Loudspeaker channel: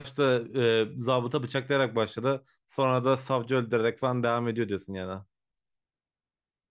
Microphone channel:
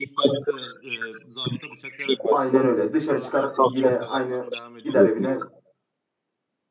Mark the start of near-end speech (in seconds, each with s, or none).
2.3 s